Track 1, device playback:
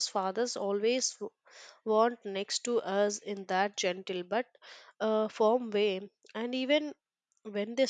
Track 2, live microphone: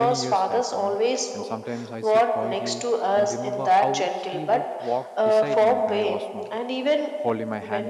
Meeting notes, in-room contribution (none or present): present